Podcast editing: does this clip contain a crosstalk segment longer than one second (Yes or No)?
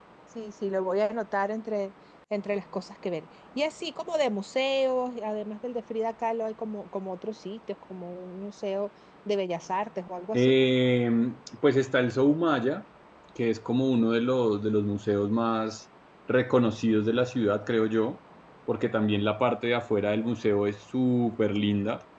No